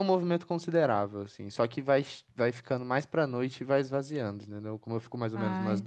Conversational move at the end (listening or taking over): listening